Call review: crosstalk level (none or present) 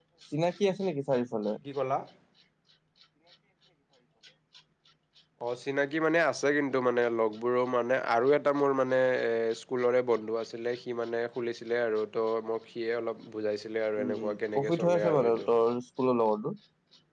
present